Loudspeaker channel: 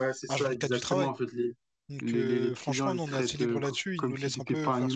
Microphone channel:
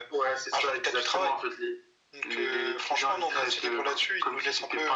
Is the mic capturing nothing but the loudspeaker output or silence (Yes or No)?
Yes